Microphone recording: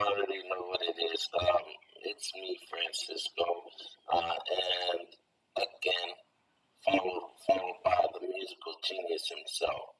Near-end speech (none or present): none